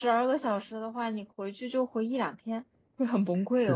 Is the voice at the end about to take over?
Yes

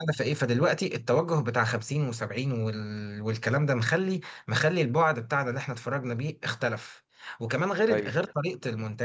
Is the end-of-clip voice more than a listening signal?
No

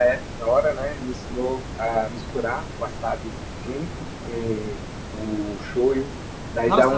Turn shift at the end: Yes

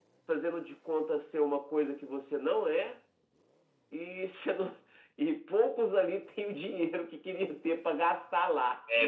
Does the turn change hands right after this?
Yes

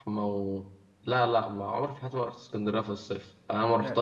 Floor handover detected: No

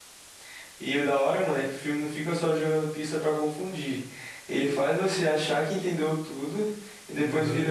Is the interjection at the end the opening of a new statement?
No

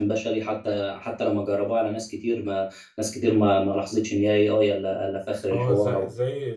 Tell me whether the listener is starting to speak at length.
Yes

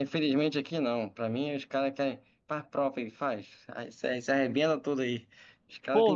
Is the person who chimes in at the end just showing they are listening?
No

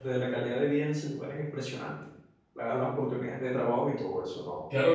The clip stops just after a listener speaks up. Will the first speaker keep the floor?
No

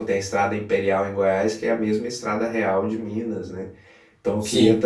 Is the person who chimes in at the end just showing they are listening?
Yes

